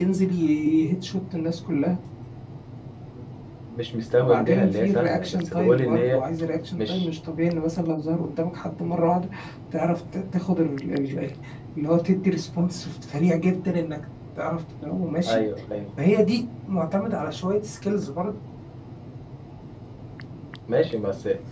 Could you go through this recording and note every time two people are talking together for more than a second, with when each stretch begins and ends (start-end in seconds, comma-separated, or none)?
4.2-6.2